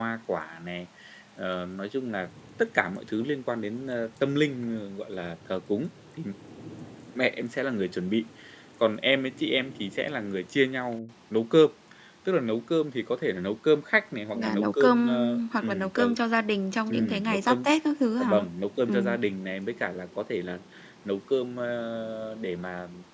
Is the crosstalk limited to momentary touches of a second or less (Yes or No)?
No